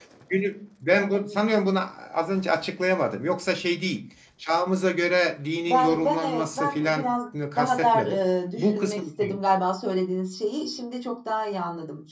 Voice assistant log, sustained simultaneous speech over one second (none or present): present